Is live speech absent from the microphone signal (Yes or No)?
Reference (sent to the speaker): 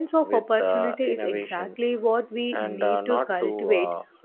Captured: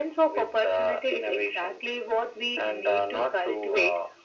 Yes